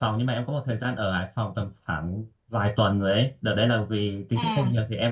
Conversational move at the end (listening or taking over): listening